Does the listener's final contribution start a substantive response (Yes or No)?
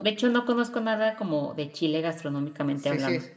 Yes